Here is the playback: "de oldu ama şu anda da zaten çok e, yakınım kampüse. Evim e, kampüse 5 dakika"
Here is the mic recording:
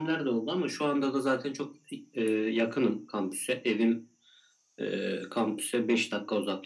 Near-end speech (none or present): none